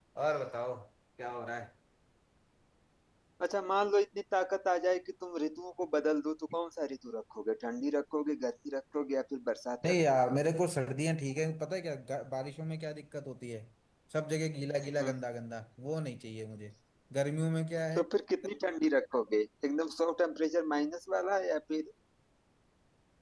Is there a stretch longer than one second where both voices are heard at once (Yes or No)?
No